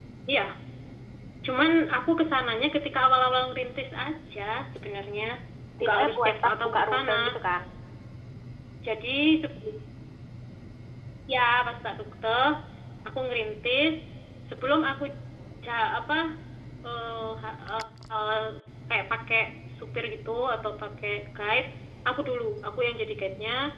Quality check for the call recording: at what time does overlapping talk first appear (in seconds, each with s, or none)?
5.8 s